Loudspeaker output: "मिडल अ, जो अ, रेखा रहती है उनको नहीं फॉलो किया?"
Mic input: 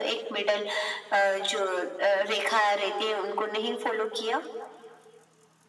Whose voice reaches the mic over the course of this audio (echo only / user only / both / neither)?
echo only